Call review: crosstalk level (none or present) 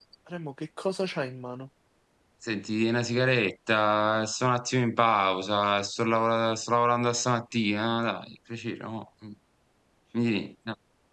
none